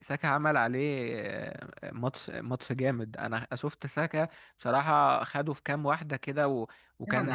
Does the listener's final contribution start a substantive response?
Yes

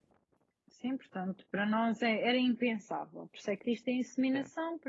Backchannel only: Yes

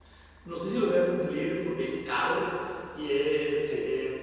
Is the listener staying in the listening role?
Yes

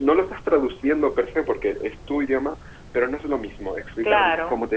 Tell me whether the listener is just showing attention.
Yes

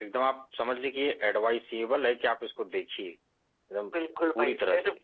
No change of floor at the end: No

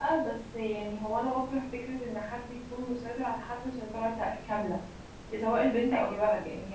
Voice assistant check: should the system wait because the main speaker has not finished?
Yes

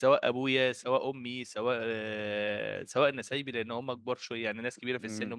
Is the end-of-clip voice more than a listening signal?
No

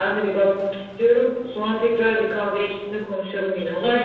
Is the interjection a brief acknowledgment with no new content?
No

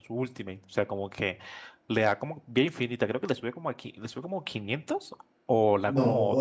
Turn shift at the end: Yes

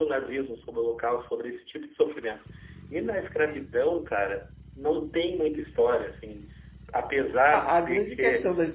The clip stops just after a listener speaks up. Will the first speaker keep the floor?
No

